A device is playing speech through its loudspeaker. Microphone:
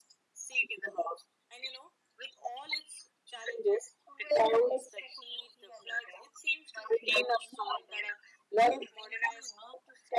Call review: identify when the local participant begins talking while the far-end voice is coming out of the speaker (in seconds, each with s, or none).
none